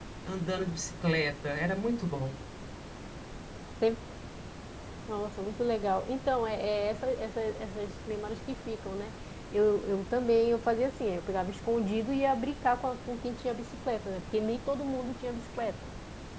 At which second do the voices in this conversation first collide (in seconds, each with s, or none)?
none